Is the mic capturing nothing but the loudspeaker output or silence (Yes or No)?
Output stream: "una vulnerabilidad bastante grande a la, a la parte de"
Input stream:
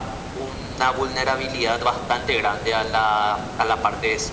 Yes